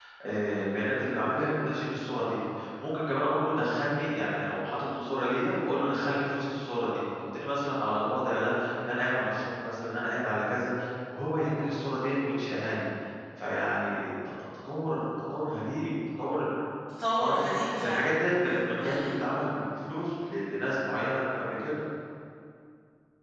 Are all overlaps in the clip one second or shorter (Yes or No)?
Yes